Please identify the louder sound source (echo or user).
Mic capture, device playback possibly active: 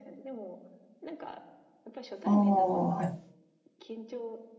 user